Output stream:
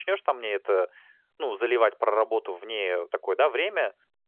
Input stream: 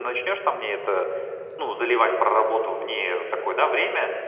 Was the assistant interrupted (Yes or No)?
No